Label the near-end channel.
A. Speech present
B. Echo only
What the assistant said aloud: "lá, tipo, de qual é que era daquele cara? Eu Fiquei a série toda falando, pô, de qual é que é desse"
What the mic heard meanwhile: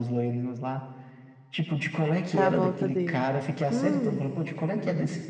A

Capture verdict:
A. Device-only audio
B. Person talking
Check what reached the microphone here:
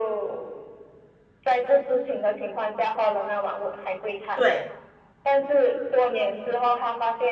B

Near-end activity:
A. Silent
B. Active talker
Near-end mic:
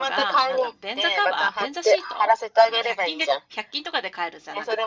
B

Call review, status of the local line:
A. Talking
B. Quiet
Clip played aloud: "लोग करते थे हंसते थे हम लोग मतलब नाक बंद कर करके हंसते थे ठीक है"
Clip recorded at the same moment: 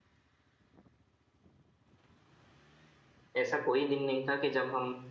A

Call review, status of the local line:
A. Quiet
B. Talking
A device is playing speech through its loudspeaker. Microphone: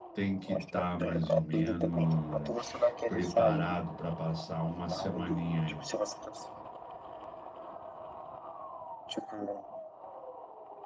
B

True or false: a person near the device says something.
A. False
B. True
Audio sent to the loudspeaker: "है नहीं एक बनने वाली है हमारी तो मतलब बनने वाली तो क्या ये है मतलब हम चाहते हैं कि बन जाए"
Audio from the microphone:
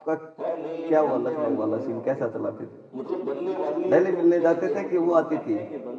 B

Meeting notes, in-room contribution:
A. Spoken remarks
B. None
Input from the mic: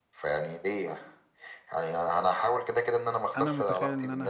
A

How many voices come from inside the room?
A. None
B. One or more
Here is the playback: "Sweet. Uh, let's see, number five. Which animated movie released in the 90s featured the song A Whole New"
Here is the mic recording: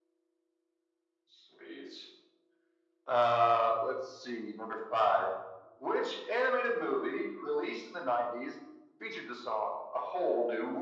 A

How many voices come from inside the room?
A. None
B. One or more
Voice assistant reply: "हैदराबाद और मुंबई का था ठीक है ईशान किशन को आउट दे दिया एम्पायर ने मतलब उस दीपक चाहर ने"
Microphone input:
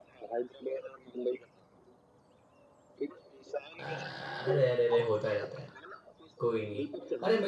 B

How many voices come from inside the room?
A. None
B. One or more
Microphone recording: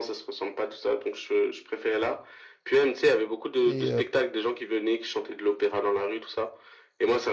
B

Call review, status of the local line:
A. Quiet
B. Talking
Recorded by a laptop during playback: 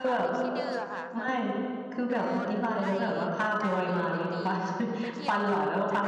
B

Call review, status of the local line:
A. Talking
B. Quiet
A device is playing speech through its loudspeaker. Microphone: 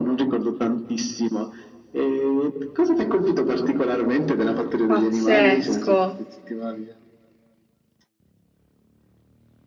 A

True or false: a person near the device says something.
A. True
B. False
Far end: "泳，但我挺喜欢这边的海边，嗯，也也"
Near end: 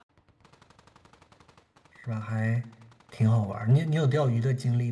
A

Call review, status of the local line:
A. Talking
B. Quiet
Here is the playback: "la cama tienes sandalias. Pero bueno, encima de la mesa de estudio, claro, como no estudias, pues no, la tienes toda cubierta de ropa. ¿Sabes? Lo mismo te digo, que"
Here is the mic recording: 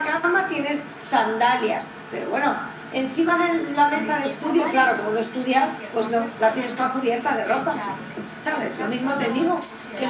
A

